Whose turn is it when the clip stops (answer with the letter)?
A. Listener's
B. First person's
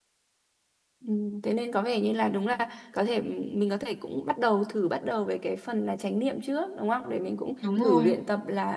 B